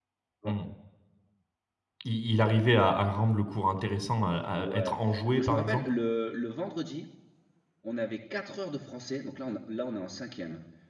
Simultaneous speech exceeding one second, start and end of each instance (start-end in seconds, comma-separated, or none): 4.5-5.9